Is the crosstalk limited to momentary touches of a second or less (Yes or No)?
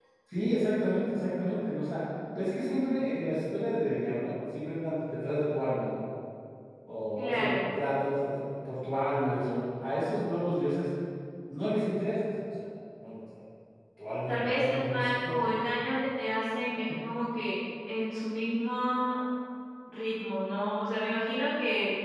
No